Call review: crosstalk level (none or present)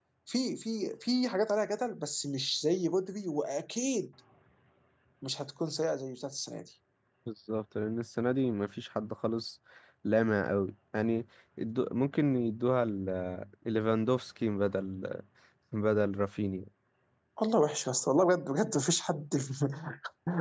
none